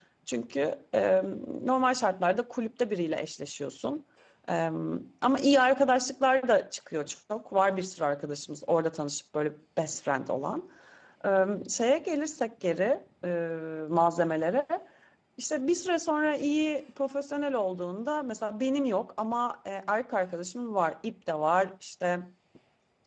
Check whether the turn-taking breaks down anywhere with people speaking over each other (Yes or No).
No